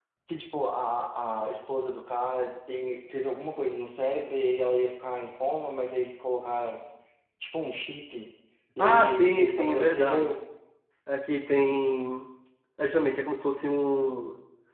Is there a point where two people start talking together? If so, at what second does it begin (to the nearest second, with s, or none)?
9 s